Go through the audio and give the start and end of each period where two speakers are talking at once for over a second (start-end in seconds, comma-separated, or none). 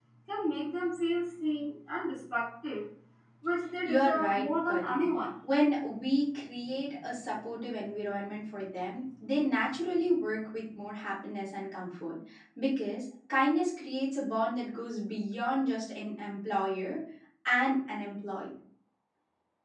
3.8-5.0